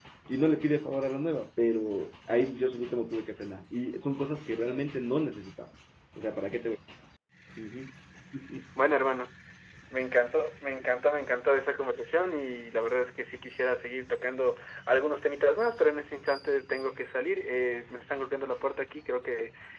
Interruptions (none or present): none